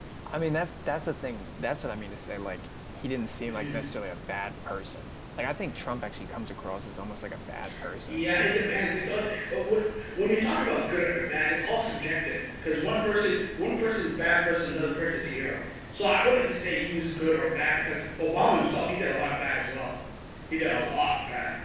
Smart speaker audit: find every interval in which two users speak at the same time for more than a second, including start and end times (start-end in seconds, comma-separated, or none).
8.1-9.6